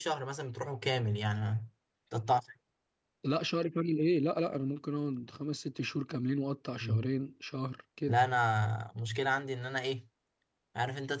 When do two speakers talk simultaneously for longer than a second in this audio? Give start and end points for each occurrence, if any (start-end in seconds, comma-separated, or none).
none